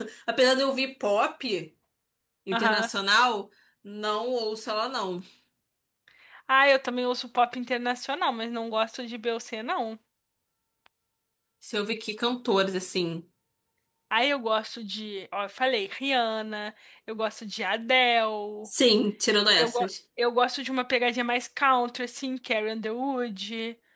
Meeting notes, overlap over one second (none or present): none